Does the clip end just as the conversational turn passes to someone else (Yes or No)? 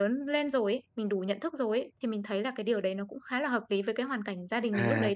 Yes